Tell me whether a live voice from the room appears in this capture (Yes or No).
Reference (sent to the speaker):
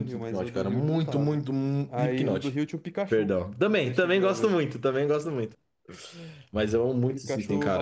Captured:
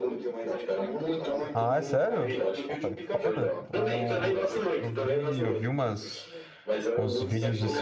Yes